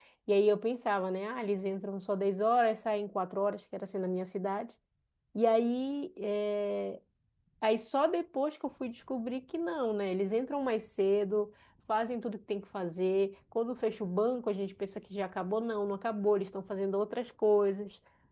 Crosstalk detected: No

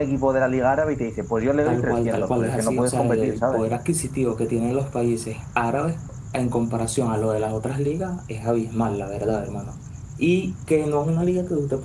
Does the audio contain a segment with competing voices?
Yes, from 1.6 s

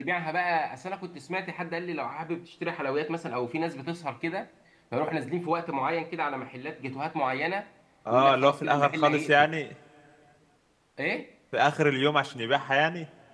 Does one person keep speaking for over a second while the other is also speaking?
Yes, from 8.1 s

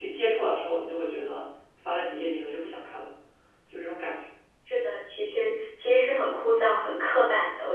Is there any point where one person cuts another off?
No

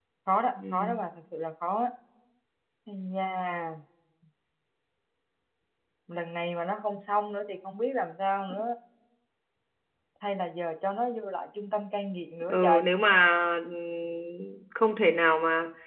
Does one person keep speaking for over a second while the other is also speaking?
No

